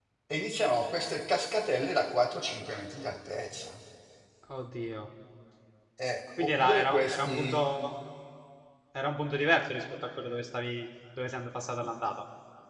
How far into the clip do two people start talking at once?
6.4 s

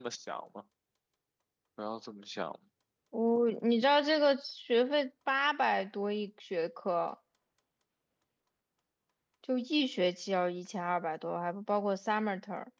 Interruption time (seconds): none

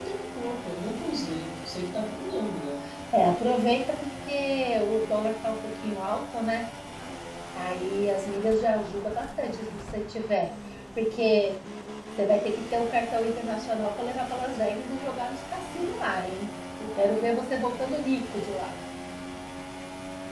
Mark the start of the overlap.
none

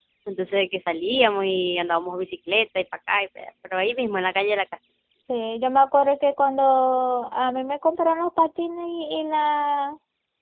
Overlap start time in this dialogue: none

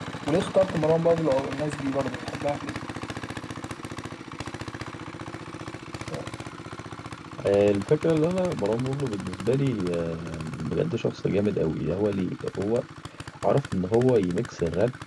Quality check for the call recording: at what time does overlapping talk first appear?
none

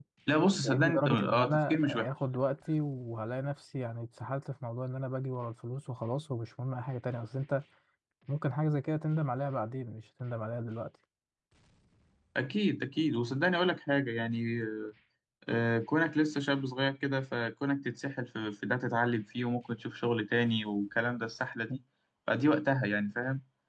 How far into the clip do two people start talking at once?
0.5 s

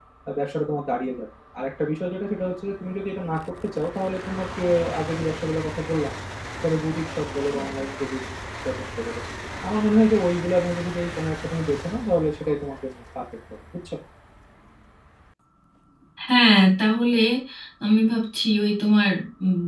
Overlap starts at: none

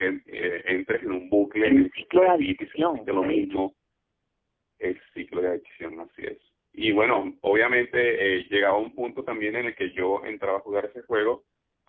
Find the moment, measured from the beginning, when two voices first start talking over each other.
1.6 s

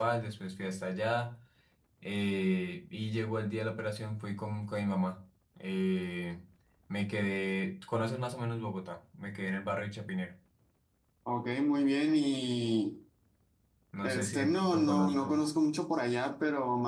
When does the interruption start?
14.0 s

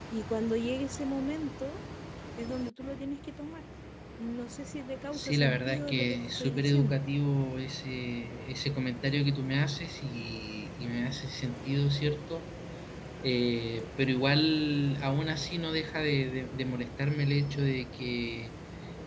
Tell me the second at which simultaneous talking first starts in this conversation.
5.1 s

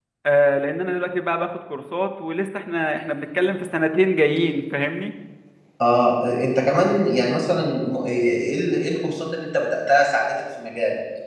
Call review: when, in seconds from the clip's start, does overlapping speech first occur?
none

